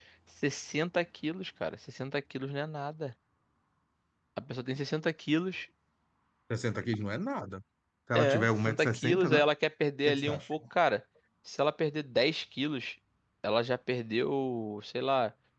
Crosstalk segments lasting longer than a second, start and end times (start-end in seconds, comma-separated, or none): 8.2-9.4